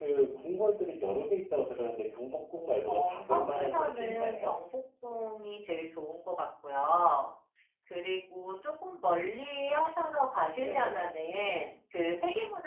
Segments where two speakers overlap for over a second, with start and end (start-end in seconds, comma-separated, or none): 2.9-4.6